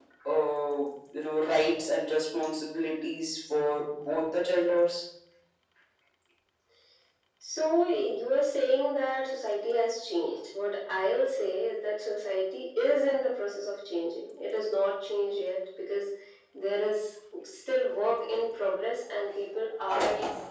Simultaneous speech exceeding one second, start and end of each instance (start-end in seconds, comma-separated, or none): none